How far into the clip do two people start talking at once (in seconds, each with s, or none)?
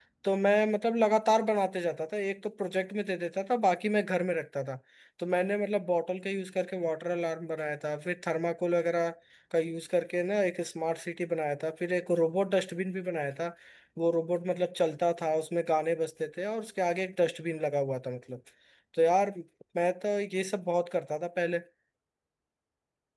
none